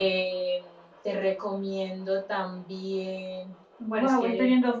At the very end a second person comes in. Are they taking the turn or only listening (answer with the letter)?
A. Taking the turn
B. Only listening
A